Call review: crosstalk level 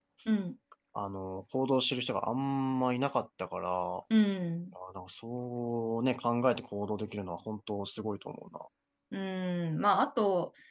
none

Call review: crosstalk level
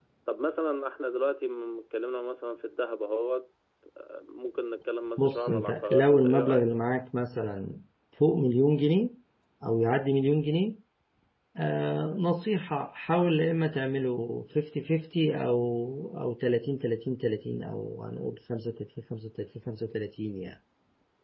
present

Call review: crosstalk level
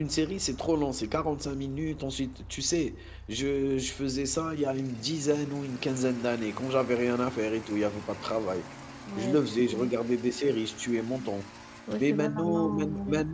present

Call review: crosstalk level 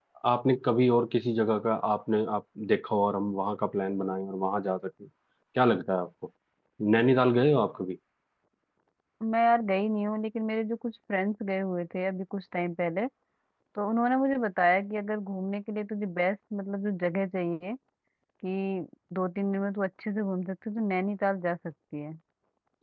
none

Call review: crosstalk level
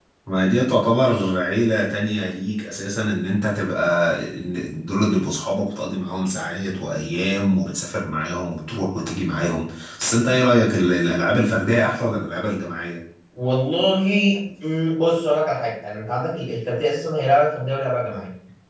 none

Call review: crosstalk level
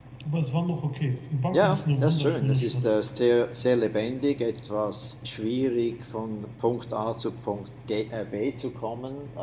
present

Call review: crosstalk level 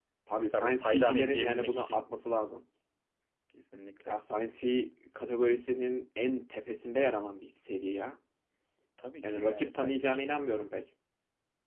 present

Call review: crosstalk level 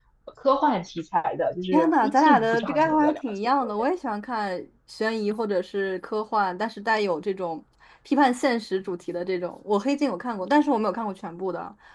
present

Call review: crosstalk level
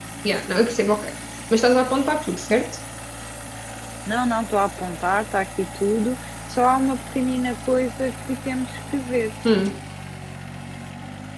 none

